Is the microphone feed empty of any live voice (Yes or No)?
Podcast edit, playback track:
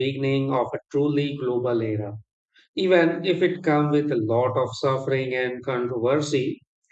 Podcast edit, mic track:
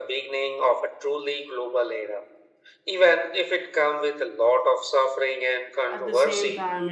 No